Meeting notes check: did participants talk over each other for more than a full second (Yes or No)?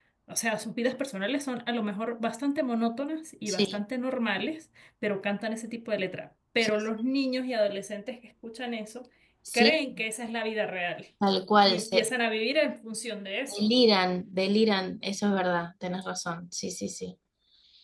No